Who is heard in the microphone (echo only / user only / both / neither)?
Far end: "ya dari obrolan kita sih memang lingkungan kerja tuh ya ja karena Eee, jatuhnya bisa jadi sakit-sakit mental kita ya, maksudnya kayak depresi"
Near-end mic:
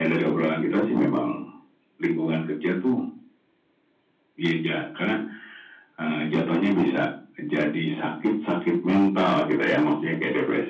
echo only